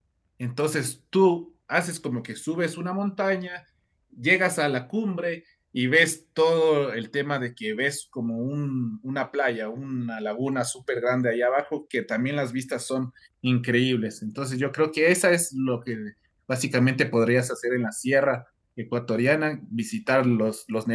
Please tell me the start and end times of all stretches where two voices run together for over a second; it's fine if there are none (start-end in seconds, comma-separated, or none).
none